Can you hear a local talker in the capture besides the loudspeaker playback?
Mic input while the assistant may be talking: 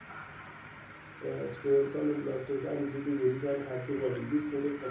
Yes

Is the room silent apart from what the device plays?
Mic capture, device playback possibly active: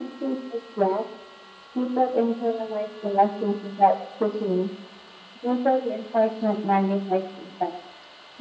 Yes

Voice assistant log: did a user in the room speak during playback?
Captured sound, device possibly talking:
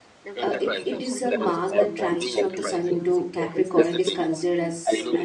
Yes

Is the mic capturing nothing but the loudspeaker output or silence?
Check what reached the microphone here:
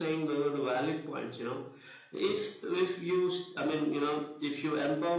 Yes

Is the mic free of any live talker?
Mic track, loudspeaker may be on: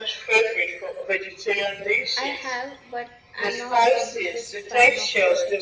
No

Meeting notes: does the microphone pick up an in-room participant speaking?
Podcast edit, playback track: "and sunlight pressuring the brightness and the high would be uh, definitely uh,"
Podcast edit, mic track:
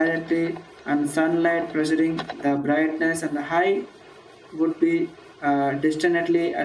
No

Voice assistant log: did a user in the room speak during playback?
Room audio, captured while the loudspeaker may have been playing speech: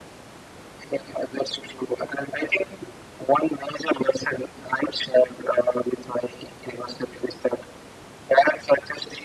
No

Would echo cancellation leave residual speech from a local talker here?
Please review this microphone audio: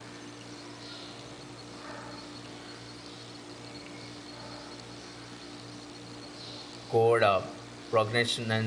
Yes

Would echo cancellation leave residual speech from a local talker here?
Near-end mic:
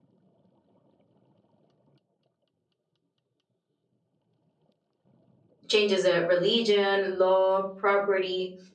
Yes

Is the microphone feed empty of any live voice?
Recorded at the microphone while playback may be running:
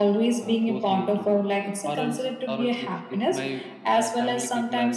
Yes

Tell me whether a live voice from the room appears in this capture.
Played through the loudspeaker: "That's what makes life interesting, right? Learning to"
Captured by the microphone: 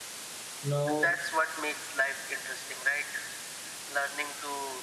Yes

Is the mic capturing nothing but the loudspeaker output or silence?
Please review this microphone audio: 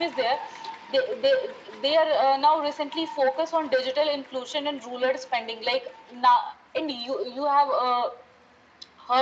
Yes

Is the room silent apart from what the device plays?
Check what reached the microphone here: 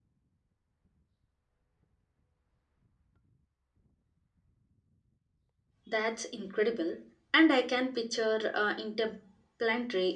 No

